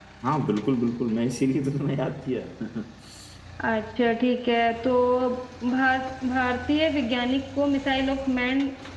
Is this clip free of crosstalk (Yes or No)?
Yes